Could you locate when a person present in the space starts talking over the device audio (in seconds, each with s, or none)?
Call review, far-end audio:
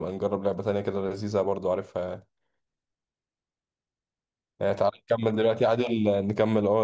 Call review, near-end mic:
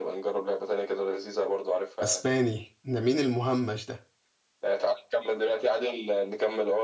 2.0 s